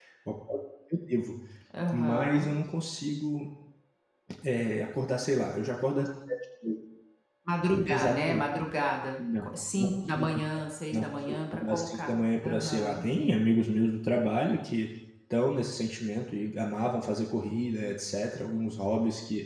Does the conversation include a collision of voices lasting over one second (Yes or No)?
Yes